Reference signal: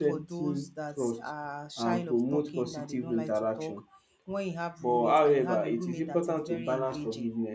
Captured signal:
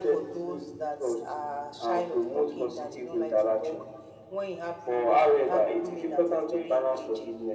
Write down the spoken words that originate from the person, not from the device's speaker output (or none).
none